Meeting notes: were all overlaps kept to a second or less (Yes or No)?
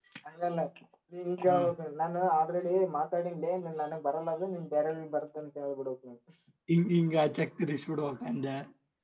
Yes